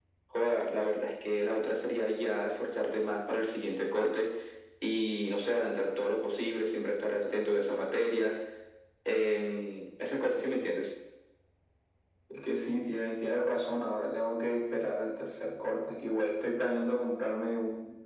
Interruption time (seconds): none

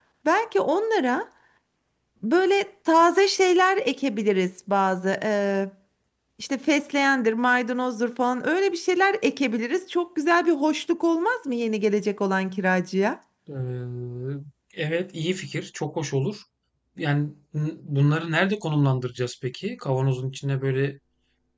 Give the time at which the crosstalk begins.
none

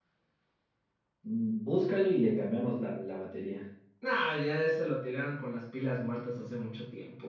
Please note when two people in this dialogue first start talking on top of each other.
none

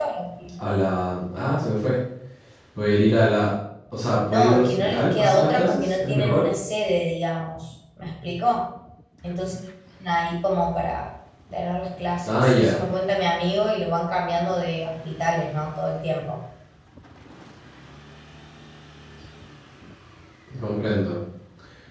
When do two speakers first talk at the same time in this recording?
4.3 s

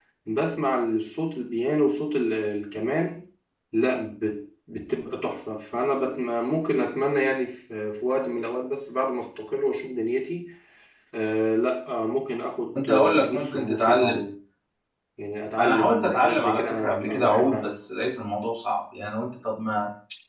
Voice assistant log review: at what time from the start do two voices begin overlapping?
12.8 s

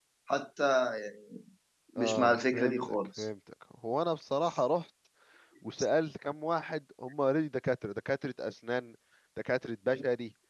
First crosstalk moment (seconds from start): 2.0 s

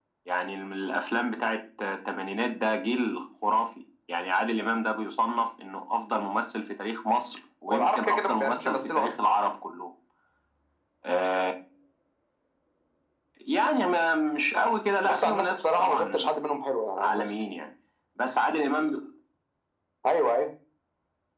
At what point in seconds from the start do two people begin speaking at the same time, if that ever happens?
7.7 s

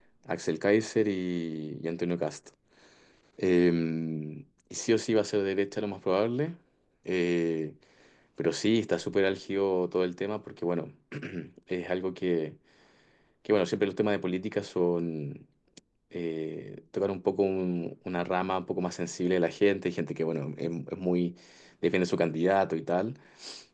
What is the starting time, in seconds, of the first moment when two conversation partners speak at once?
none

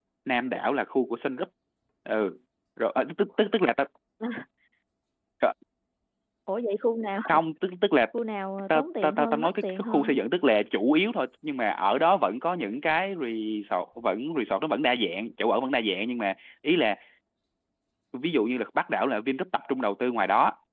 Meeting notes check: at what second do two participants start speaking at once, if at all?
8.7 s

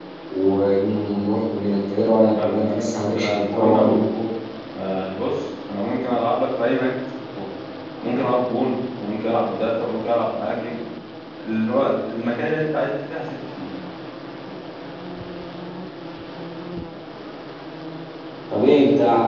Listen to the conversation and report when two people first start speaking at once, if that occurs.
2.3 s

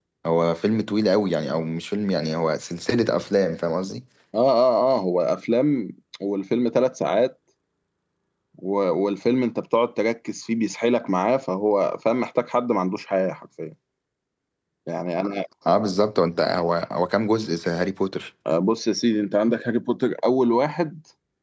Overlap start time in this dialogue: none

